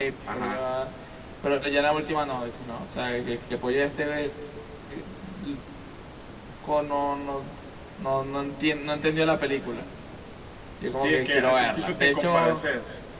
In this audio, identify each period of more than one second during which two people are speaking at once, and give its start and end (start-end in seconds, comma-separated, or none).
11.0-12.6